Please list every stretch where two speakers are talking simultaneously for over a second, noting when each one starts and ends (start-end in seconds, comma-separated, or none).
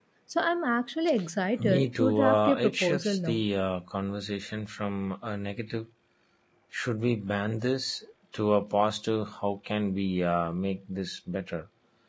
1.6-3.4